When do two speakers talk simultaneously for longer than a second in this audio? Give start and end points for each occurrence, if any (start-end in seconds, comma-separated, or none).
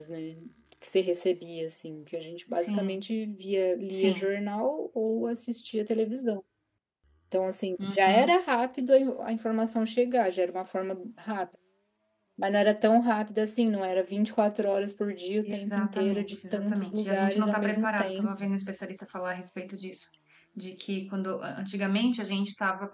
15.4-18.5